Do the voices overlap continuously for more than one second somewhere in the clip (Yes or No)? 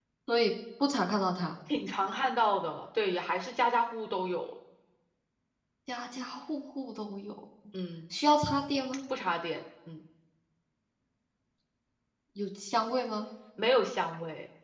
No